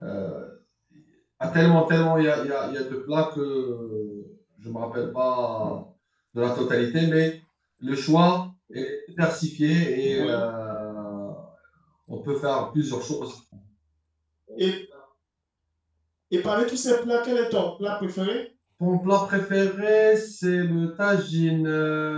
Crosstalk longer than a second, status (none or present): none